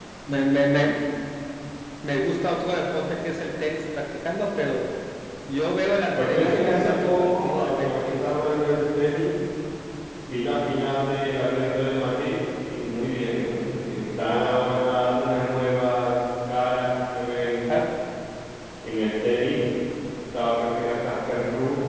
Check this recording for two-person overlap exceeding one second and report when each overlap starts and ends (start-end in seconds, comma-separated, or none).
6.2-8.7